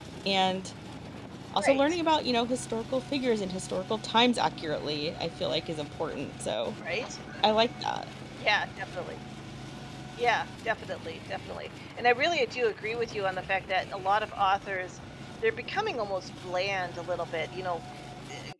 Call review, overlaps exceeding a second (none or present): none